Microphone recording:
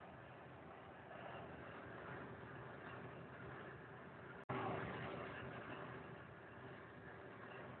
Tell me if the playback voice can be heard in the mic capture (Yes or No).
No